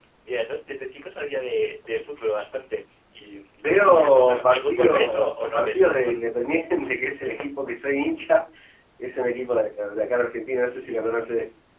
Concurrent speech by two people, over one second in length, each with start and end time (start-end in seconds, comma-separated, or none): 3.7-6.2